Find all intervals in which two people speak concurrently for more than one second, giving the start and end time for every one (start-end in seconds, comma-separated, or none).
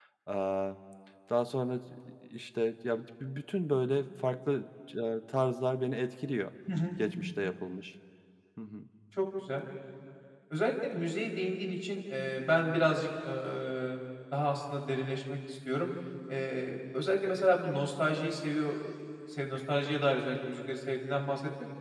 none